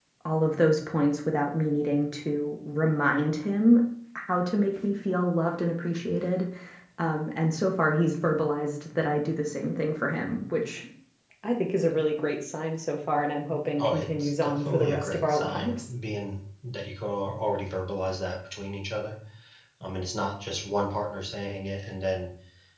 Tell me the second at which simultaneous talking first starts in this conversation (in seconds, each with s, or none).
13.8 s